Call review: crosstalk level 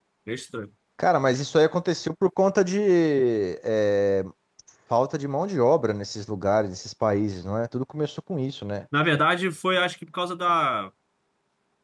none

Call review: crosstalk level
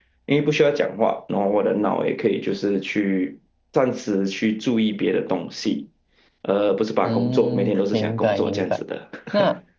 present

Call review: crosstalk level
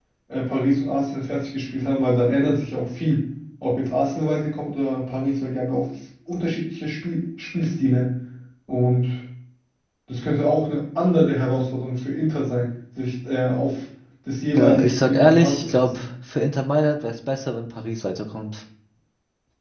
present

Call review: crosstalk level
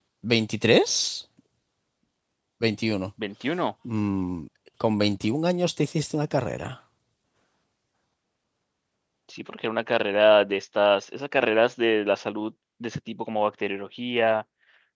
none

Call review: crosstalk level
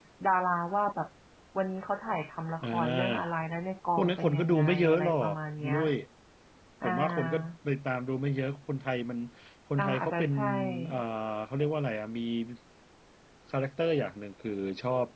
present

